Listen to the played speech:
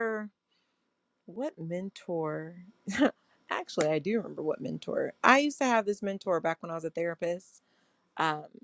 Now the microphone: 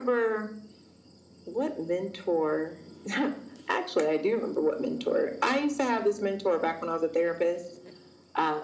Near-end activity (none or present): none